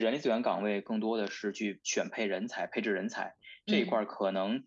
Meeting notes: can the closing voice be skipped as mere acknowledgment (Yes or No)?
Yes